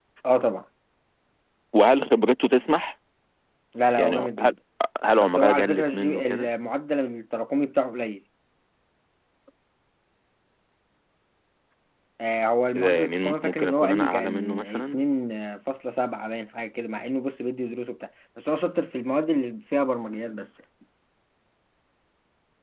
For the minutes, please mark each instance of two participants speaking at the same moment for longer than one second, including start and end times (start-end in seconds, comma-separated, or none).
5.2-6.5, 12.7-15.0